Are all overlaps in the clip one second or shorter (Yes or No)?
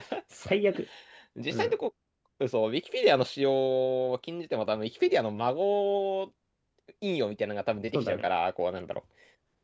Yes